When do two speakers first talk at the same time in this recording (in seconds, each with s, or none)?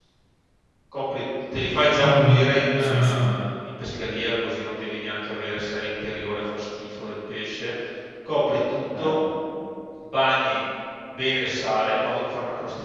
2.0 s